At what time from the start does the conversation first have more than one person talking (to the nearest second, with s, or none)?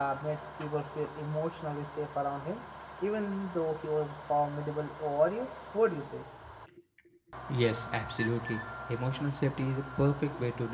none